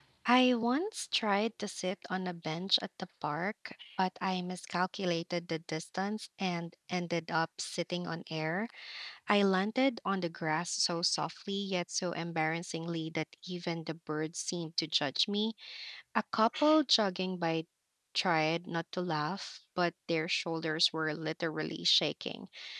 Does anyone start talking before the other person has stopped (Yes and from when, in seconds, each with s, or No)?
No